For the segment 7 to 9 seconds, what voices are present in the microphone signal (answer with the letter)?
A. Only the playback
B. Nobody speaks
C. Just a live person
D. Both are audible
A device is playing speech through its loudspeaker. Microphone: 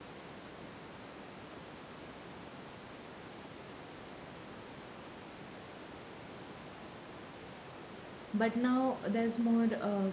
C